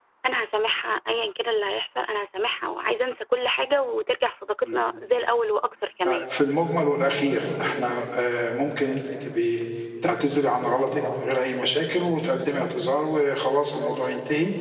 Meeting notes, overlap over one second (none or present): none